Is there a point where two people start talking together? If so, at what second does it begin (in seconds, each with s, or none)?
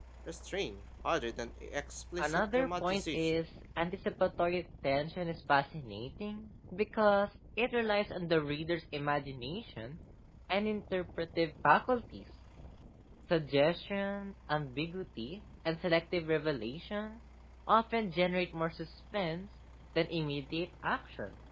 2.2 s